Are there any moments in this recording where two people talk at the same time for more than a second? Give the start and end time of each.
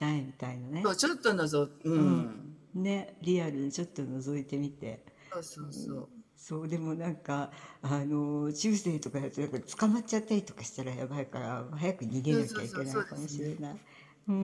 12.3-13.6

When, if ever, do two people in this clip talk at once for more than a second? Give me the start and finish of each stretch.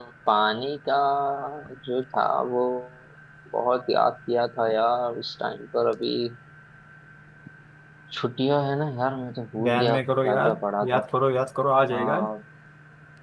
9.6-11.0

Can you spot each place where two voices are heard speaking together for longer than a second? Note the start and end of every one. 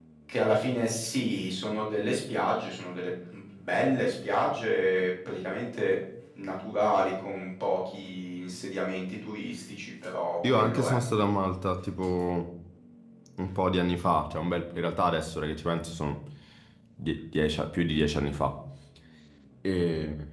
none

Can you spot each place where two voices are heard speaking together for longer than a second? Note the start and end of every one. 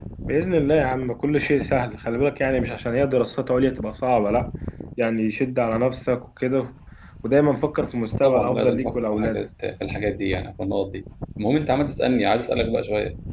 8.2-9.5

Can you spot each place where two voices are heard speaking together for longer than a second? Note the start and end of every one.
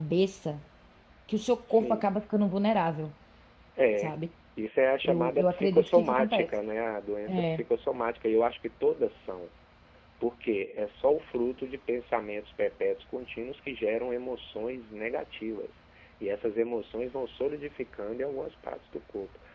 5.0-6.5

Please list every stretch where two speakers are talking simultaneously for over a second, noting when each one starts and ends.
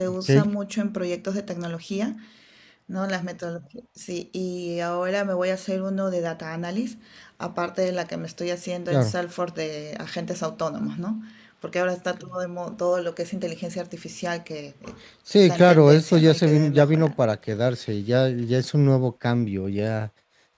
15.5-17.1

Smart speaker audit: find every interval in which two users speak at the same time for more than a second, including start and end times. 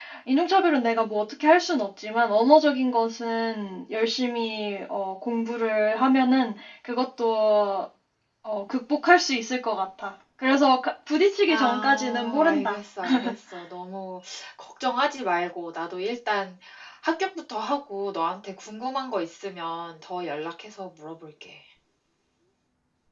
11.5-12.8

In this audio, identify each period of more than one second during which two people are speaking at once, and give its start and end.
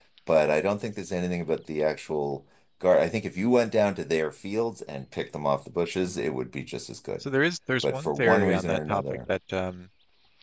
7.8-9.0

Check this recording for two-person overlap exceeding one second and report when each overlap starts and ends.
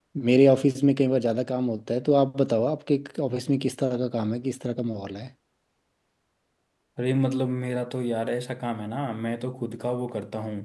none

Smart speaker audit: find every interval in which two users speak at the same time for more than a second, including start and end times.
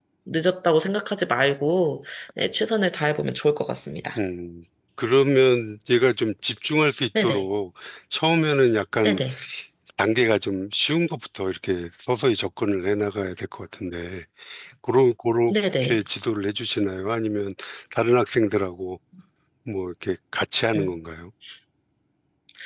none

